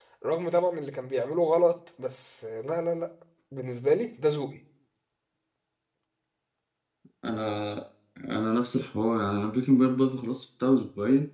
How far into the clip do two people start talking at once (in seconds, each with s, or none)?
none